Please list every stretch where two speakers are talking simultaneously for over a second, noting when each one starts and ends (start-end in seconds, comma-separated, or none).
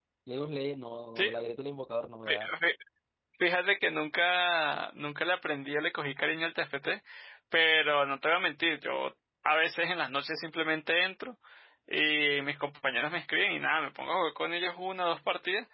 none